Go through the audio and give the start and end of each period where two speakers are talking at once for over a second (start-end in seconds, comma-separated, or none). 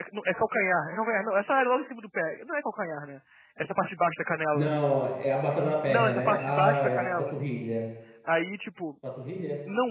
5.9-7.3